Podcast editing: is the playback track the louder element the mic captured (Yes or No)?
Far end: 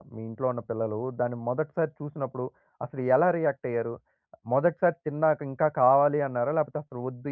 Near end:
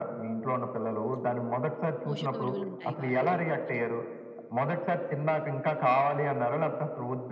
Yes